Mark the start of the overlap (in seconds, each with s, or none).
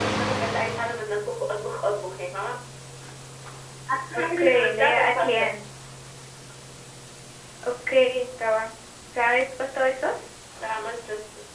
4.2 s